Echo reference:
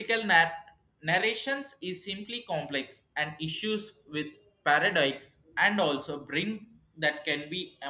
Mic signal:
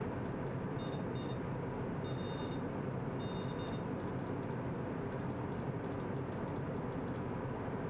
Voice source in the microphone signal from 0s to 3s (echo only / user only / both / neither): neither